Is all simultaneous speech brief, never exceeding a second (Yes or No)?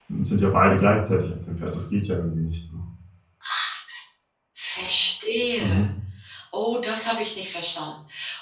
Yes